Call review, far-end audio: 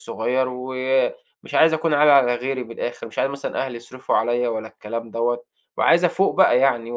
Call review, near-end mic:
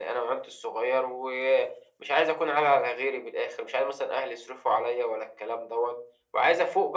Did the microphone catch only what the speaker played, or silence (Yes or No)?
Yes